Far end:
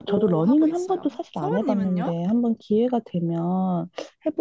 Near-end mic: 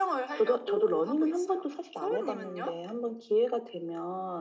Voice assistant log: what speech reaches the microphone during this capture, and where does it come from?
echo only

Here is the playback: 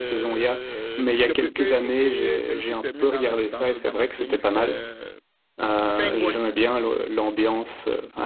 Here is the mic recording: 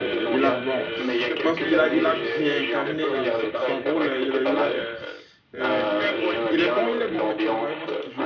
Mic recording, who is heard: both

